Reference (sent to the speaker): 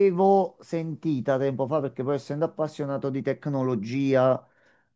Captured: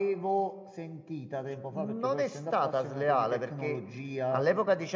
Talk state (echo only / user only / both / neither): both